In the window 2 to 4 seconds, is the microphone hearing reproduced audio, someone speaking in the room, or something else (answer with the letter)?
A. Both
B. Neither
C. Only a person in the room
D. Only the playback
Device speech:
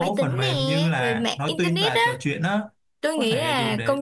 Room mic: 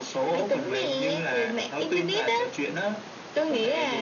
D